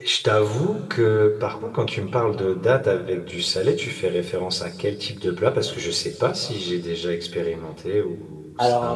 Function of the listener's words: taking over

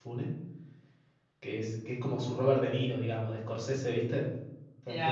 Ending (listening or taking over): taking over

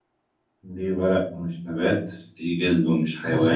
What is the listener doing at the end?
taking over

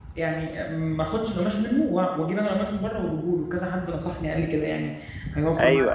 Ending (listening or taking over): taking over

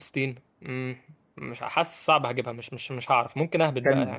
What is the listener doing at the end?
taking over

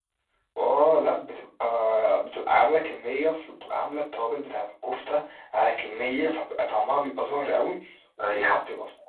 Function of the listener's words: listening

